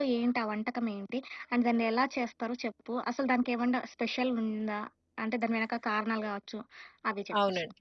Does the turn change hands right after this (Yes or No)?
Yes